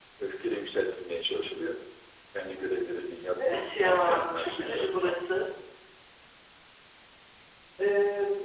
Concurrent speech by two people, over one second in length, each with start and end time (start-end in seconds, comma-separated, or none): 3.5-5.2